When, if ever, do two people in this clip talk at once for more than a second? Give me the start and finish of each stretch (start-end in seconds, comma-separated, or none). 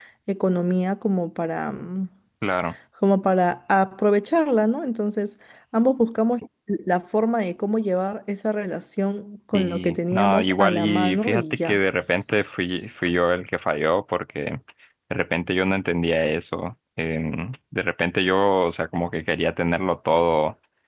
9.5-11.8